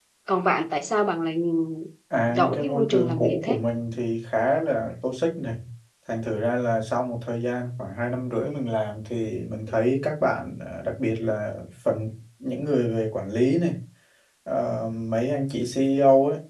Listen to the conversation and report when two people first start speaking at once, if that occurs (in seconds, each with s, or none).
2.3 s